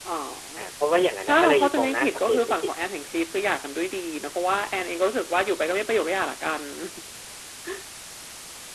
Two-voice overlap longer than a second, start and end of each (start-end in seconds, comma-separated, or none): 1.3-2.7